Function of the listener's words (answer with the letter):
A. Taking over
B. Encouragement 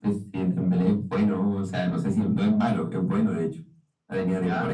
B